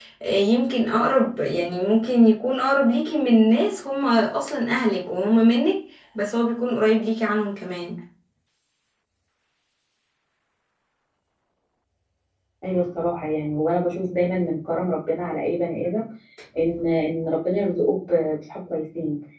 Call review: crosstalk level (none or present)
none